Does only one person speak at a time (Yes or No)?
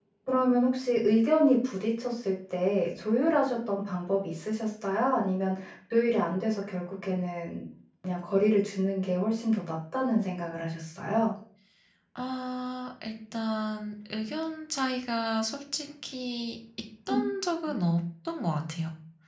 Yes